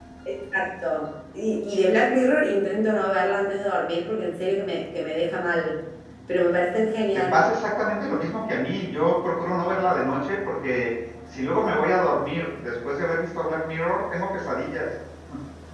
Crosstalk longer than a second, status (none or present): none